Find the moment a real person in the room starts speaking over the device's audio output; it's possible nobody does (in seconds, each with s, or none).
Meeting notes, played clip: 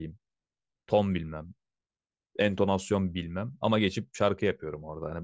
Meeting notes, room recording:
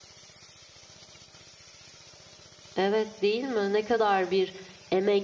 2.8 s